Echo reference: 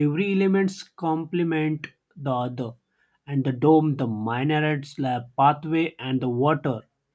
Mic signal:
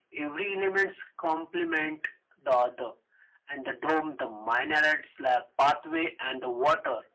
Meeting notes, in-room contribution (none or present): none